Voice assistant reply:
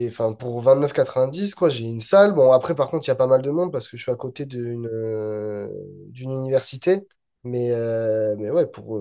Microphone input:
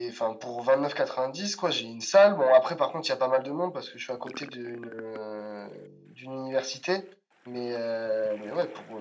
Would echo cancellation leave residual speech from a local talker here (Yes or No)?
No